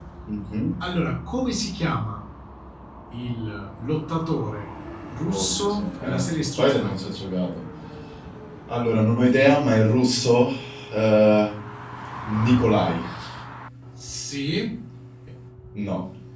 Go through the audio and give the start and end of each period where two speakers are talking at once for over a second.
5.3-7.1

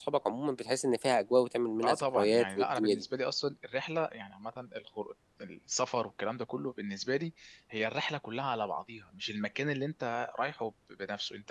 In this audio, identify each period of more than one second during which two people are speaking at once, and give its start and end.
1.8-3.0

